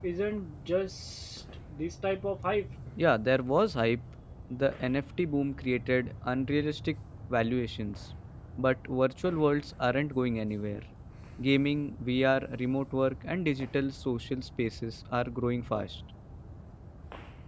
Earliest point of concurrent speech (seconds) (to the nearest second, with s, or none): none